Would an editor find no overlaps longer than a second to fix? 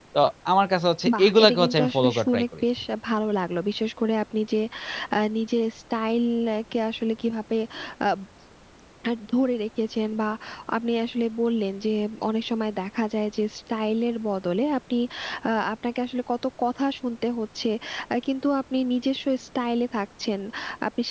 No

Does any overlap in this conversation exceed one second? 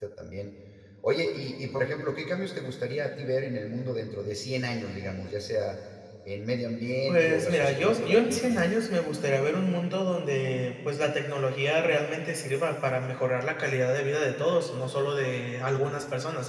Yes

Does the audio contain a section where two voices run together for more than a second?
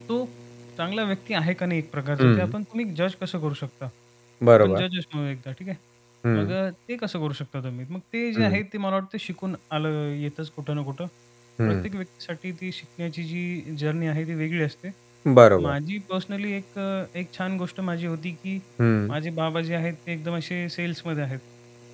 No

